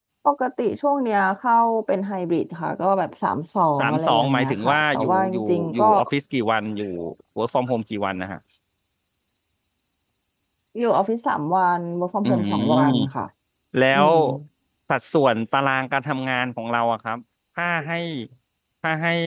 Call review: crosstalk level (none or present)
present